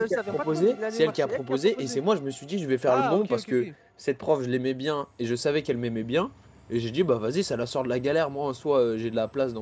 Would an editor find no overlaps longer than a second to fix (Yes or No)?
No